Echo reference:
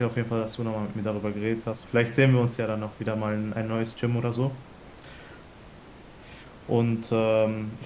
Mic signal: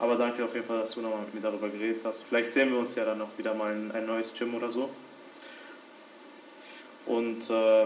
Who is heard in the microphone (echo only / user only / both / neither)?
echo only